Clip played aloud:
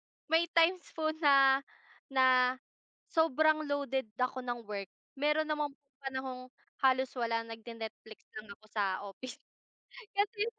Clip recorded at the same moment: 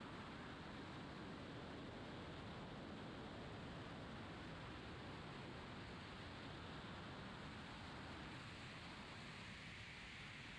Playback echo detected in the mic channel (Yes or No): No